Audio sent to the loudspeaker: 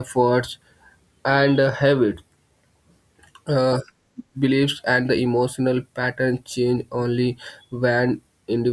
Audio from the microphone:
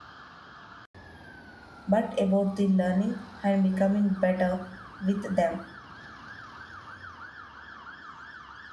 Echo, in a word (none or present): none